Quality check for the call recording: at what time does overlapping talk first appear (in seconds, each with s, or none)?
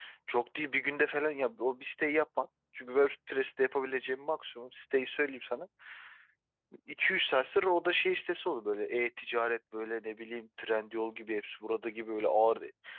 none